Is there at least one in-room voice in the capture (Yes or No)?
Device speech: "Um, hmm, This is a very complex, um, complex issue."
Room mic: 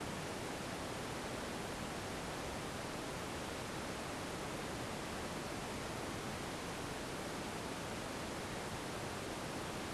No